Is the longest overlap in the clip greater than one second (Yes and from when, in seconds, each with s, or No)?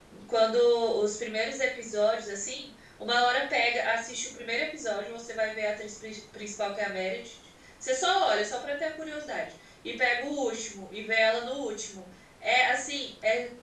No